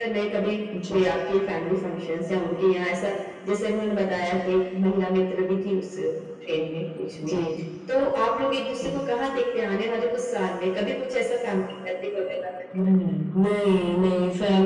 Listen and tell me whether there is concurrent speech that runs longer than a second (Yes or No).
No